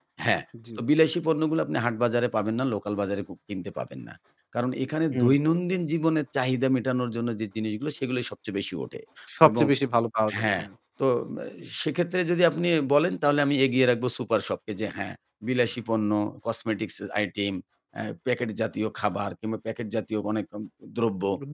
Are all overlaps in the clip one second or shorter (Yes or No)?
Yes